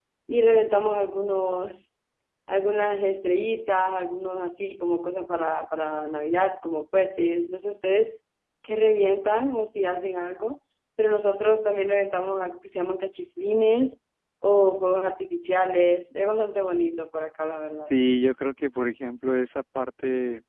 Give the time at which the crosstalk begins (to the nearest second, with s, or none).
none